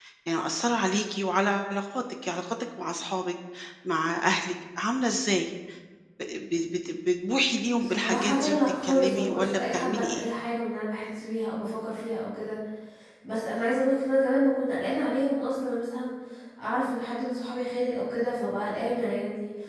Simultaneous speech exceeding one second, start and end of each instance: 7.8-10.3

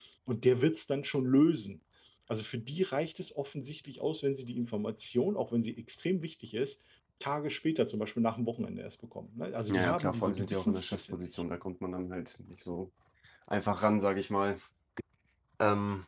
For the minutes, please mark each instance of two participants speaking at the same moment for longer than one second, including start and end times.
9.7-11.2

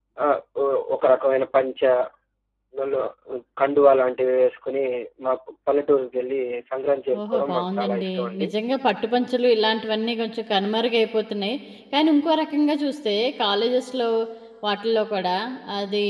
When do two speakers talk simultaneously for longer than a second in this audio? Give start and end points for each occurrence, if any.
7.2-8.4

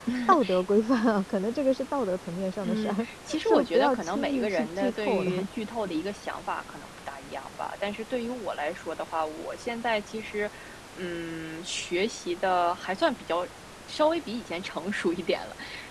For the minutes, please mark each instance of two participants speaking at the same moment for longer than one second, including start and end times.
2.6-5.4

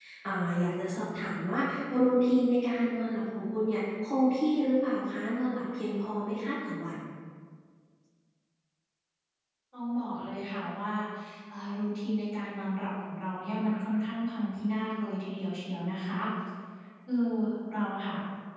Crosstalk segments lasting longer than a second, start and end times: none

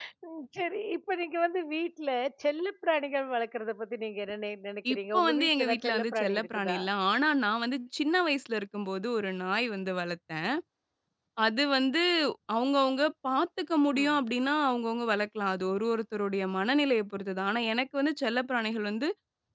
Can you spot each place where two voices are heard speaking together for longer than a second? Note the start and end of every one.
4.9-6.8

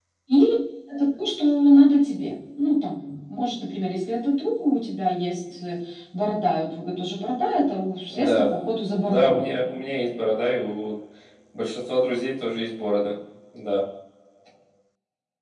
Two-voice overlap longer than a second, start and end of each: none

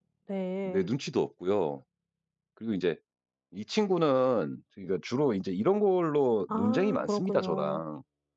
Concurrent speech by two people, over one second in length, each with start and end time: 6.5-7.8

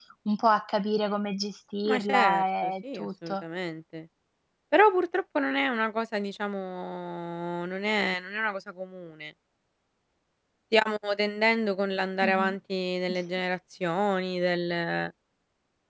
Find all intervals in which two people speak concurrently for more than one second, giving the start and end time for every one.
1.8-3.4

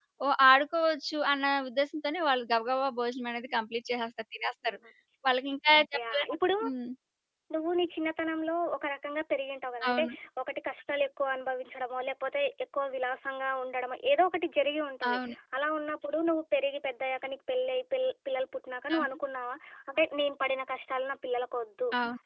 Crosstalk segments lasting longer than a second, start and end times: none

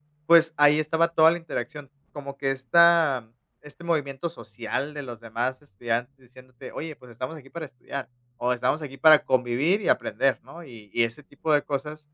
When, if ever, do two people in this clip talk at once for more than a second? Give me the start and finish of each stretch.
none

